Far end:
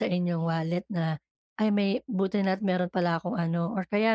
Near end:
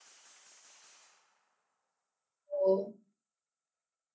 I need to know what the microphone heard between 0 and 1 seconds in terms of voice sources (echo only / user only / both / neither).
neither